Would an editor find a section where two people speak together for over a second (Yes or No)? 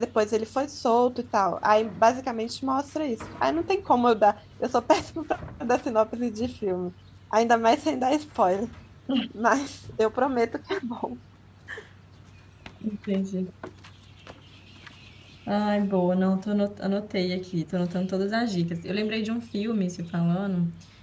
No